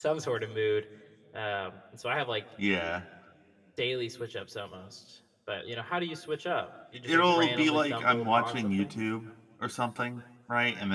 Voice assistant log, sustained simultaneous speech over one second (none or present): present